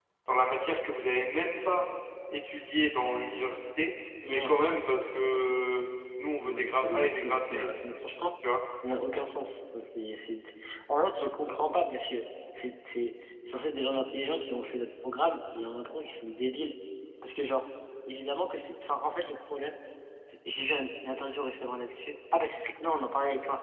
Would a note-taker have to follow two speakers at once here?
Yes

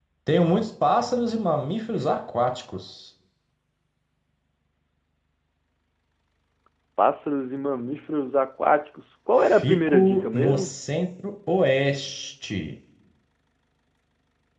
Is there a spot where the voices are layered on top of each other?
Yes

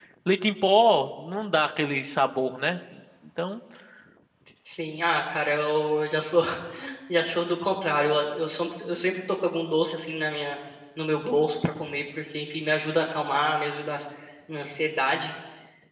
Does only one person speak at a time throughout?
Yes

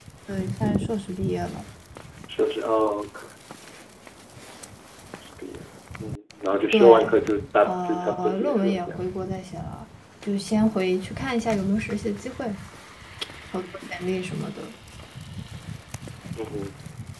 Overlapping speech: Yes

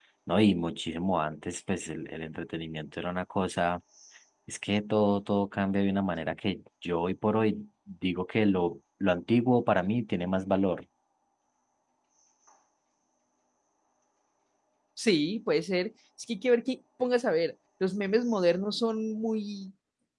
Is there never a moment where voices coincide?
Yes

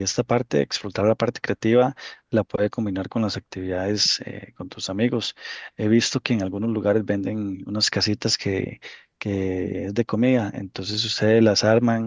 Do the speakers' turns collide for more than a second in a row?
No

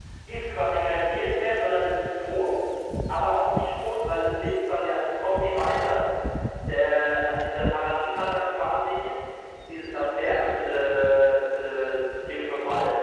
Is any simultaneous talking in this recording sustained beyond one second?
No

